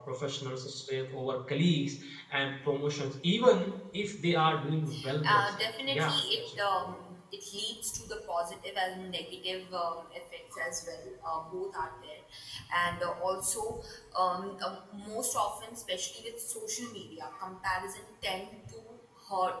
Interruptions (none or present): present